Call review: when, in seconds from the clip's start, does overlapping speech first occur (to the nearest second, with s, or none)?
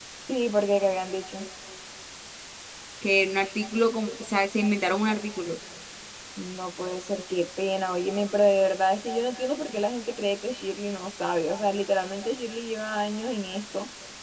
none